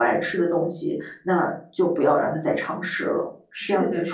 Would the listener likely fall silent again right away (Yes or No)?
No